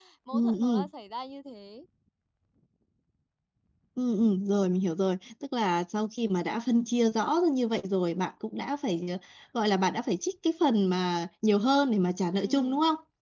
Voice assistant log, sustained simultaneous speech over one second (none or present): none